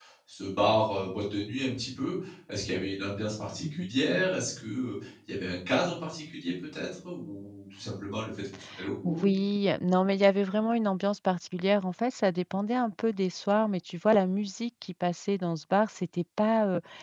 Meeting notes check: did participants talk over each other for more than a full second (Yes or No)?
No